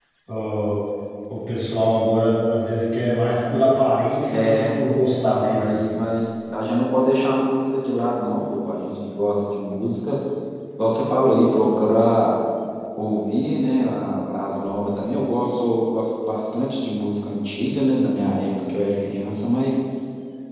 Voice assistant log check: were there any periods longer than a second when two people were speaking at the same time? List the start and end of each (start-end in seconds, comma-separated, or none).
4.3-5.9